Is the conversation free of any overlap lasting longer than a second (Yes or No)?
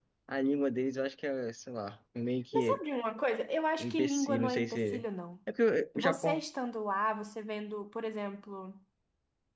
No